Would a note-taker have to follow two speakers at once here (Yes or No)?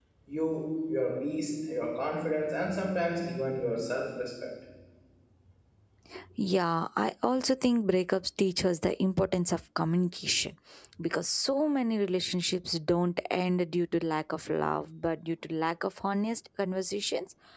No